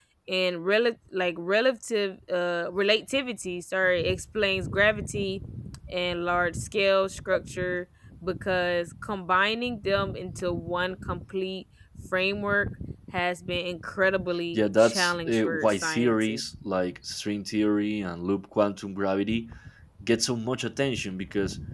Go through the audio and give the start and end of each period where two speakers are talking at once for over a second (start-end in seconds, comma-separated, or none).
14.5-16.4